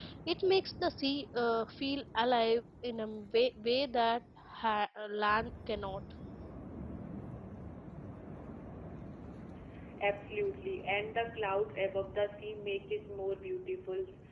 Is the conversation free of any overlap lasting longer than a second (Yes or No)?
Yes